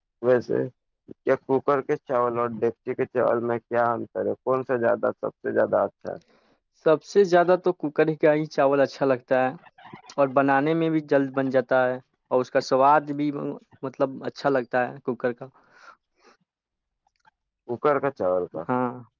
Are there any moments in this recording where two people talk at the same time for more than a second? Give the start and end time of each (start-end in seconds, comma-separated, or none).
none